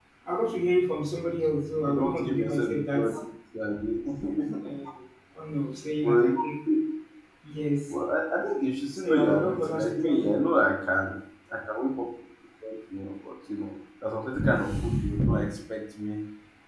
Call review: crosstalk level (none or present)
present